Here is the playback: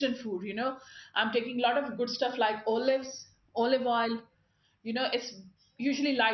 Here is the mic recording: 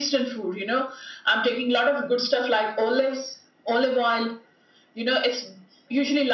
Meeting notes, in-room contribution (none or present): none